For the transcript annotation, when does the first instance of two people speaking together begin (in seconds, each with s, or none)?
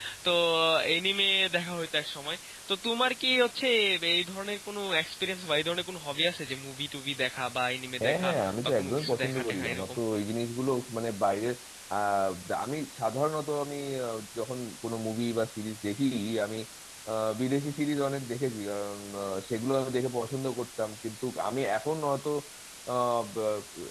8.0 s